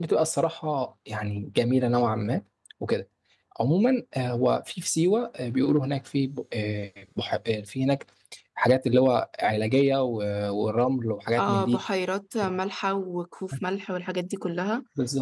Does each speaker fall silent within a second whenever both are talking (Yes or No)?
Yes